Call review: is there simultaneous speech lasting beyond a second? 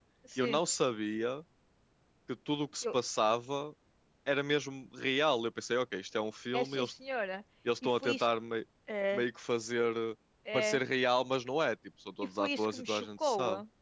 Yes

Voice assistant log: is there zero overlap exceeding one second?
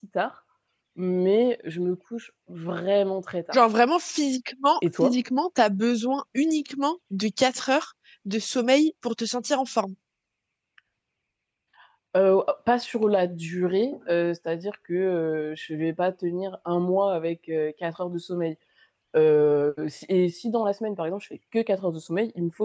Yes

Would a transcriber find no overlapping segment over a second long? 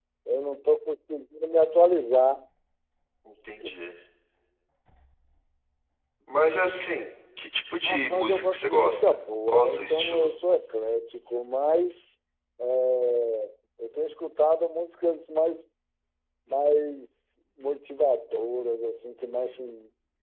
No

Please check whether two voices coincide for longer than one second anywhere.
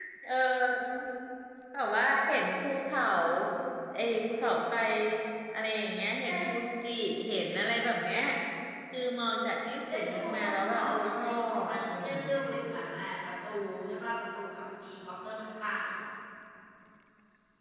Yes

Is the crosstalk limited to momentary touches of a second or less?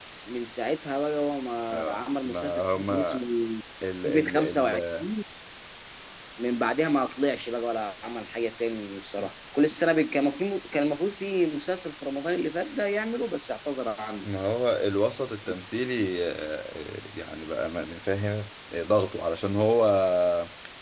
No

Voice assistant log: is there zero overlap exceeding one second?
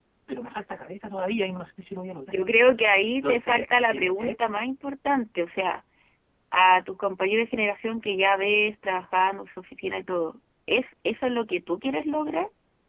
No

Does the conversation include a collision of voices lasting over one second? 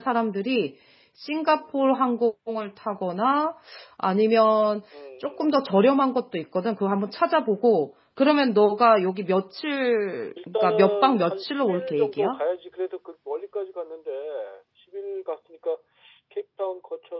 Yes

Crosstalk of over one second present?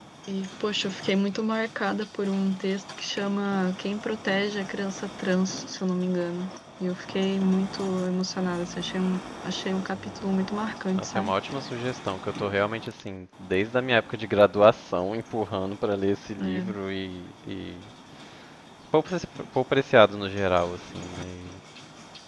No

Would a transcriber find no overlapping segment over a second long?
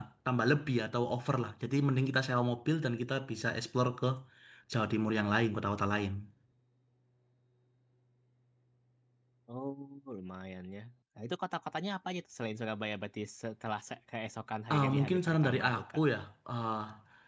No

